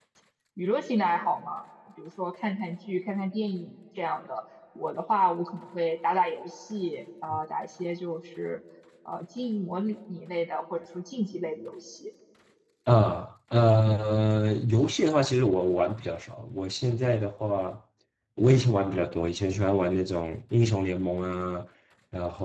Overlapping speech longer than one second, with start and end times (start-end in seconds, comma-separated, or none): none